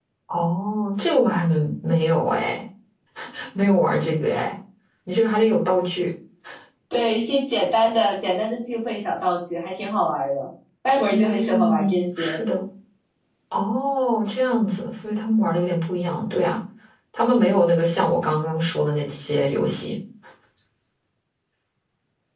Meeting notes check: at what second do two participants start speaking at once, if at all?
11.0 s

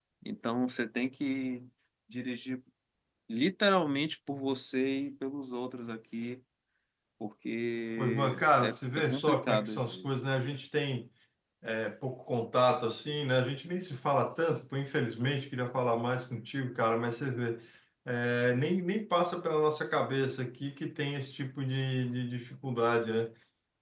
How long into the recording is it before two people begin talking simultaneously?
8.0 s

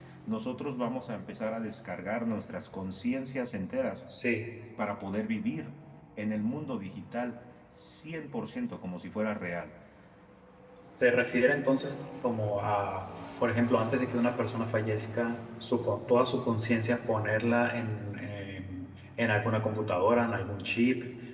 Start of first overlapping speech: none

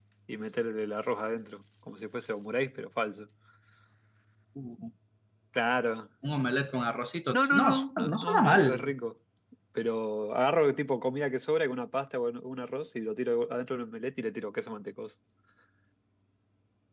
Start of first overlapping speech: 7.3 s

